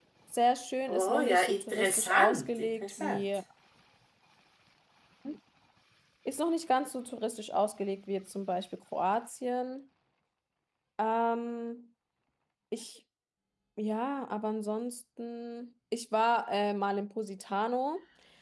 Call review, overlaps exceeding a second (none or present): present